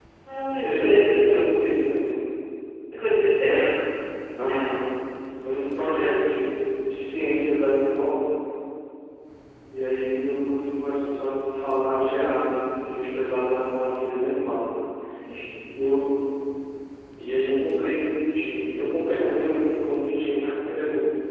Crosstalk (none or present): present